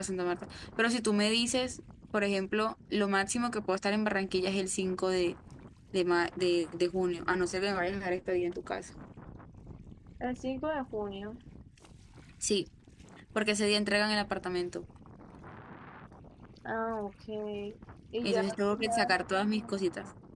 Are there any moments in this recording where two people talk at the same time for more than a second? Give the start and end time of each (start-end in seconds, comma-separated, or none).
18.2-19.7